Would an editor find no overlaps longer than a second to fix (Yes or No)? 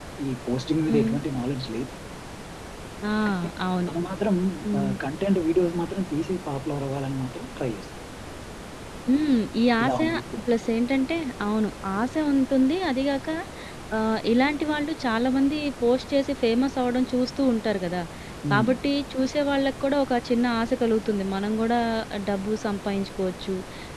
Yes